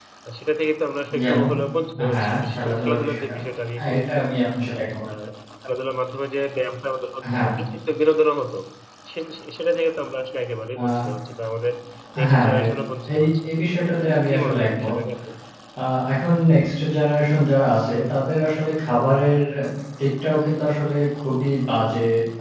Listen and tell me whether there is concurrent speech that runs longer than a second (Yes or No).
Yes